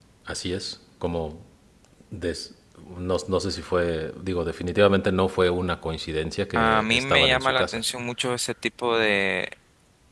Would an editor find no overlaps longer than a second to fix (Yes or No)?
No